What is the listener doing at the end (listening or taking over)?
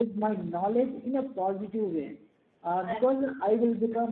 listening